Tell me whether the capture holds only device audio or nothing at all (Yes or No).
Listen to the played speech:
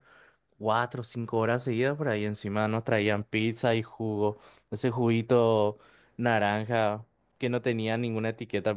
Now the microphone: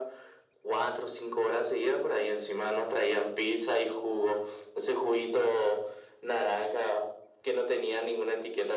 Yes